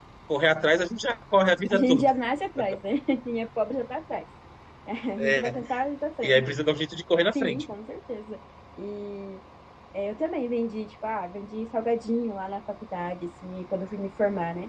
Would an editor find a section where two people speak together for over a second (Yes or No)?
No